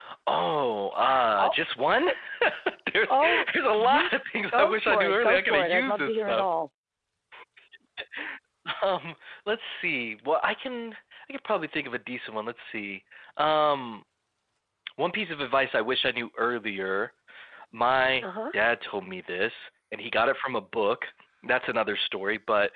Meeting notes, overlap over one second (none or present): present